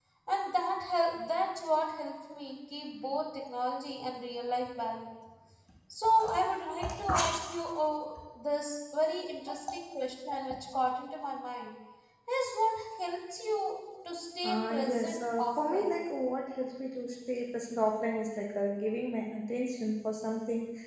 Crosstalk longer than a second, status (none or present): present